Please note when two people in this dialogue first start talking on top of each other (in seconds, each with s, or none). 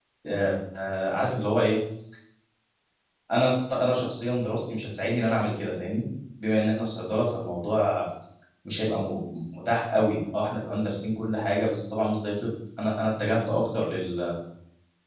none